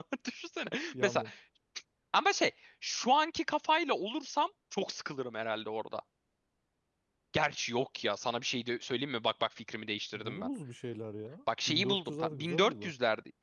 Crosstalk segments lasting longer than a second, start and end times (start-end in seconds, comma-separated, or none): 11.7-12.9